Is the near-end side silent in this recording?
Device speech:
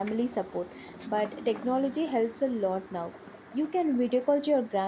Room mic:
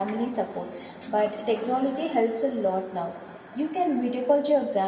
Yes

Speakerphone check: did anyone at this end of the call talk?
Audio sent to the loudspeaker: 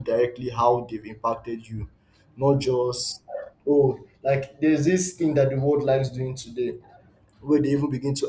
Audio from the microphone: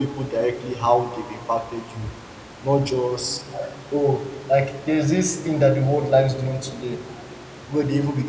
No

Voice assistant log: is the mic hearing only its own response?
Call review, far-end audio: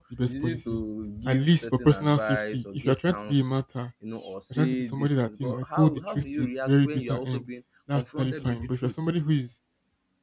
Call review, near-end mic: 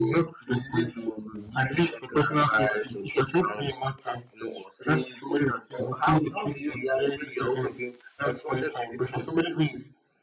Yes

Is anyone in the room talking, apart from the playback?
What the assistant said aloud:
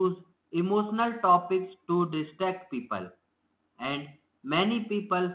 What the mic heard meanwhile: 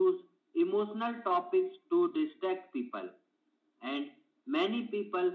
No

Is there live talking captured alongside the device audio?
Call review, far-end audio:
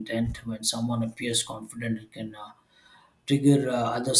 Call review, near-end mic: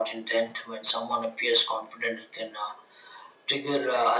No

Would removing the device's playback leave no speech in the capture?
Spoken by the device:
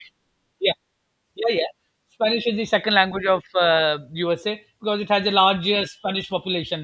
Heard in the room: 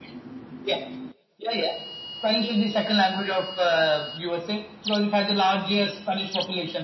Yes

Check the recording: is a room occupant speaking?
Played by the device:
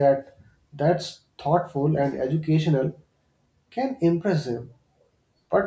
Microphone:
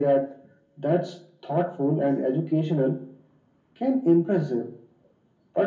No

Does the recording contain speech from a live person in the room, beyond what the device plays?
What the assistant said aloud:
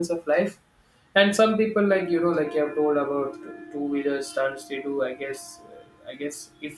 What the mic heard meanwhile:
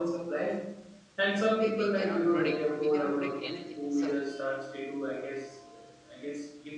Yes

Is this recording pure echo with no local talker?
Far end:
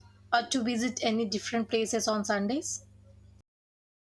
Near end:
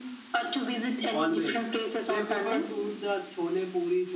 No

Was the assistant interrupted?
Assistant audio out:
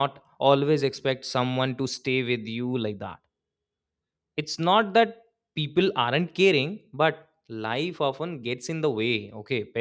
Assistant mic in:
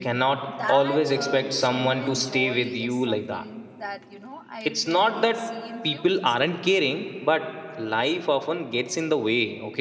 Yes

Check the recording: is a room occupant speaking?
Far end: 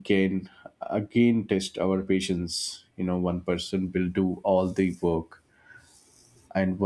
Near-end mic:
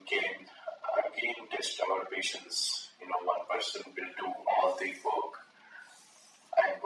No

